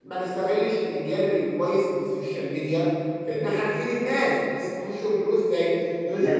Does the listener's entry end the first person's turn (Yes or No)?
No